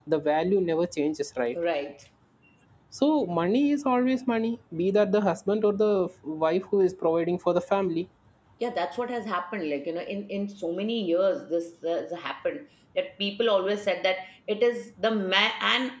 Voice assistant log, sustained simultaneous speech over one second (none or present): none